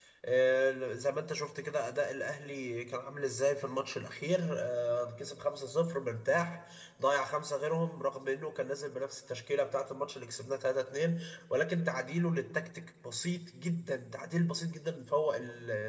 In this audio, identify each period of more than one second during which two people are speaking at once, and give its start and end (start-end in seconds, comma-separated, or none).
none